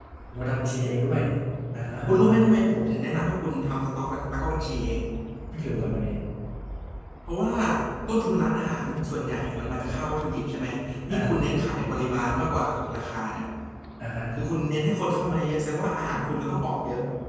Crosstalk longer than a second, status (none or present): none